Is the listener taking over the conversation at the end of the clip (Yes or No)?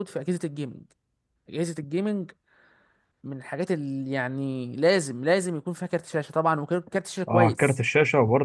Yes